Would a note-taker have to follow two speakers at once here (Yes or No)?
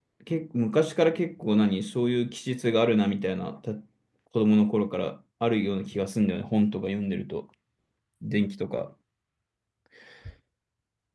No